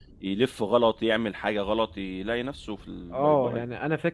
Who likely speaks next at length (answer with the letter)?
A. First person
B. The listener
B